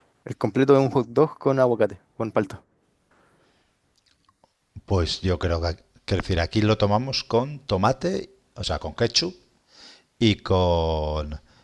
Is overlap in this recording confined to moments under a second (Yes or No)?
Yes